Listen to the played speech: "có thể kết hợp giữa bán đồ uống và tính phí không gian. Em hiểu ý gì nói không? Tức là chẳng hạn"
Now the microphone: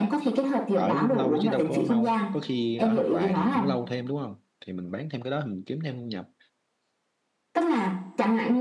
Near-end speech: present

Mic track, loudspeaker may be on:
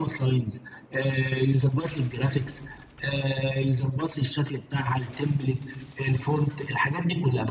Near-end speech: none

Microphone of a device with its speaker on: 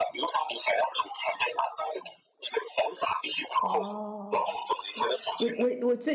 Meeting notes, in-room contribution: present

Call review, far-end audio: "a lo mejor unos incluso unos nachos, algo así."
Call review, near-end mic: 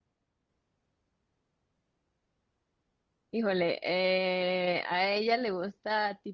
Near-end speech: present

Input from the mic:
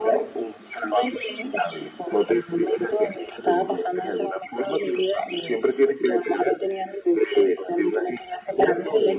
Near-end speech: none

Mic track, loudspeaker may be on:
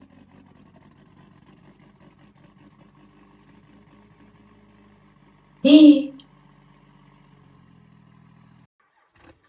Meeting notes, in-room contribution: present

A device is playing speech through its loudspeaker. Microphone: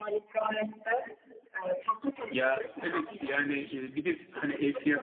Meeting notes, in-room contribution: present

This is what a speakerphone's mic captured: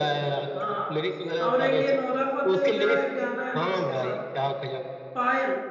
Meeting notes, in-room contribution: present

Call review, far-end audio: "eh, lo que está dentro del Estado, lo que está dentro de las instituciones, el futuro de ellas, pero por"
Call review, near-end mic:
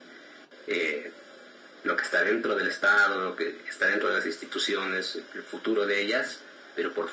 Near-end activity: none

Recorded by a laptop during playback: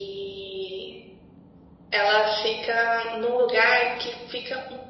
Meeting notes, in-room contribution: none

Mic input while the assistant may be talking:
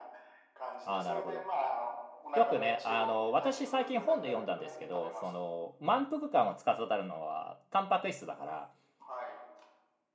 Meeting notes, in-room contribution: present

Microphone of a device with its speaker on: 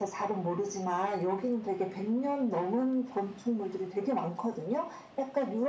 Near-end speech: none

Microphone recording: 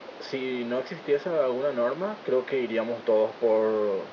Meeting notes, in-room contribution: none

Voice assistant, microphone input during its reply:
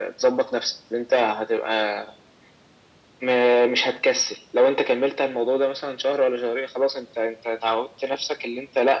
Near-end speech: none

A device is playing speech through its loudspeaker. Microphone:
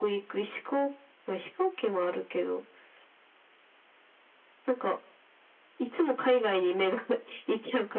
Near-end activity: none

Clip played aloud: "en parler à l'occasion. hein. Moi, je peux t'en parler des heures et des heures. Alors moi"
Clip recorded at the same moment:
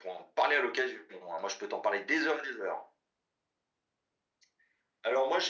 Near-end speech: none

